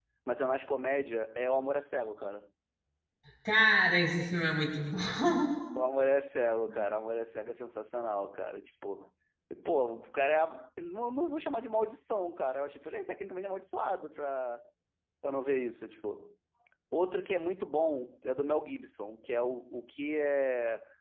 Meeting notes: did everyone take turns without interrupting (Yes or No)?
Yes